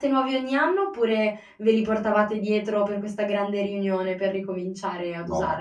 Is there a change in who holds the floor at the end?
Yes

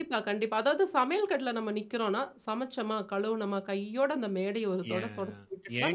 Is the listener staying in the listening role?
No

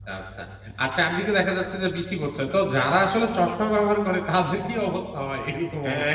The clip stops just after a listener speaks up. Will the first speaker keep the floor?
No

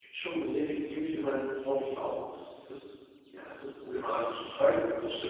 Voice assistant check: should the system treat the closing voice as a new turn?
Yes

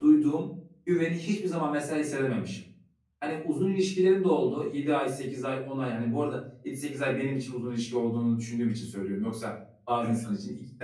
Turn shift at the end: No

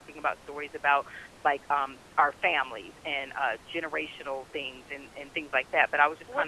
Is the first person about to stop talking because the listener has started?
Yes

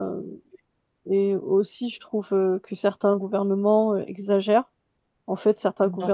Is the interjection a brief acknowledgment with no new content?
Yes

